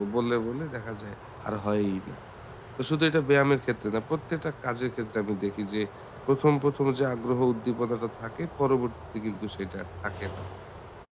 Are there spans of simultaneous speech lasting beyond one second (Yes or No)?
No